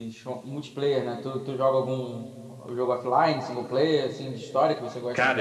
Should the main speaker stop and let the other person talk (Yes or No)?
Yes